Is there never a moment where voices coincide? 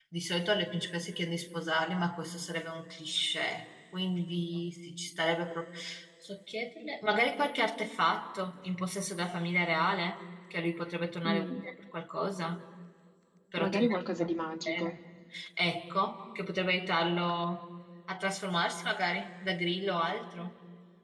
No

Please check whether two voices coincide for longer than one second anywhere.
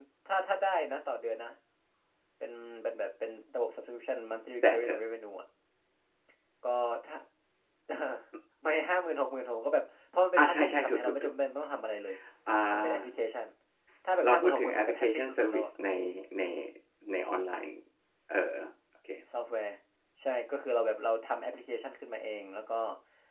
Yes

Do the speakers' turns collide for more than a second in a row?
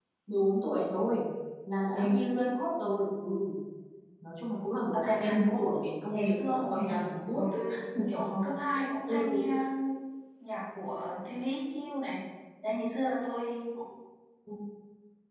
Yes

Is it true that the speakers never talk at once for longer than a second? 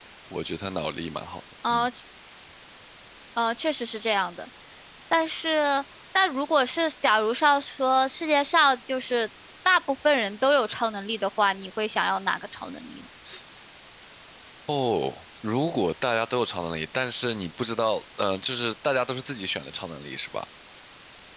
Yes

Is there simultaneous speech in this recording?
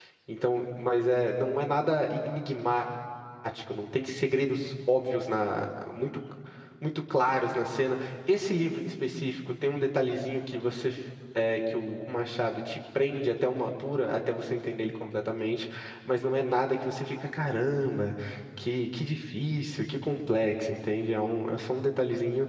No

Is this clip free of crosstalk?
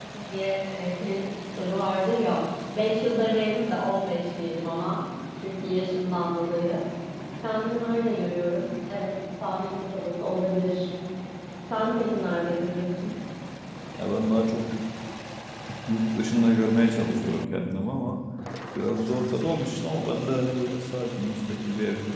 Yes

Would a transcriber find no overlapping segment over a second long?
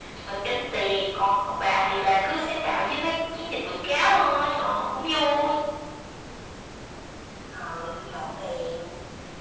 Yes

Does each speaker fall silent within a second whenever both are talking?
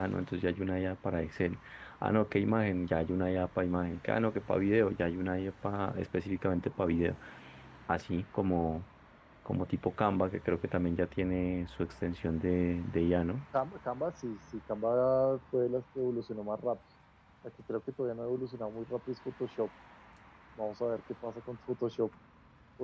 Yes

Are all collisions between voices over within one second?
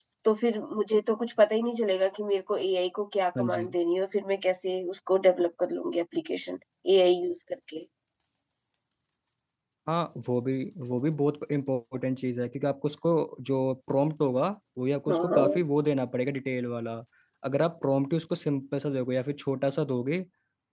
Yes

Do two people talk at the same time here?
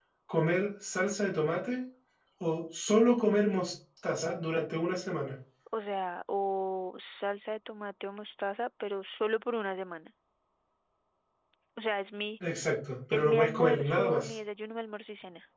Yes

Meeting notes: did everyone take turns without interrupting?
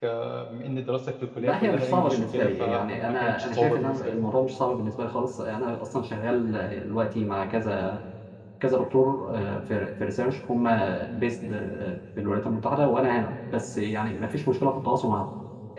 No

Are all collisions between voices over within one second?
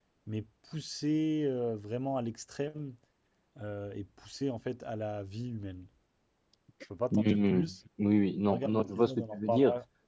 No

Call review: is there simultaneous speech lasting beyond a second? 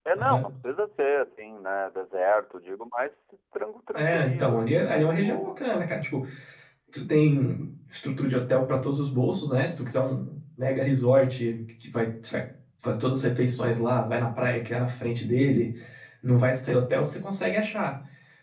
Yes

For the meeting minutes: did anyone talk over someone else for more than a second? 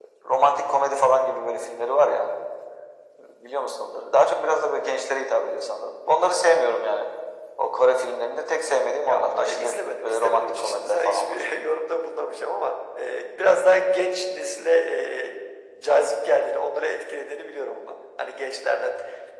Yes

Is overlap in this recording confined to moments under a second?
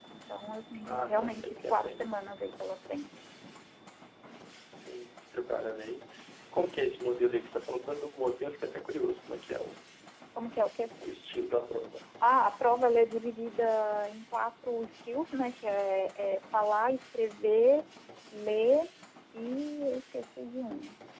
No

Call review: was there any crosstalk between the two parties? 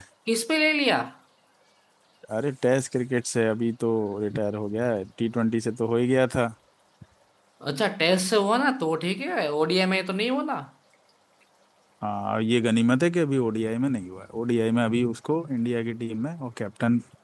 No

